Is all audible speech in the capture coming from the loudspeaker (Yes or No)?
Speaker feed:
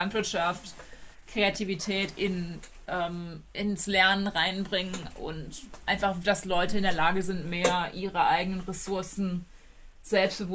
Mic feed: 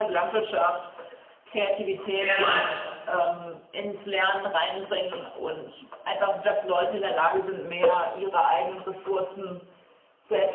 No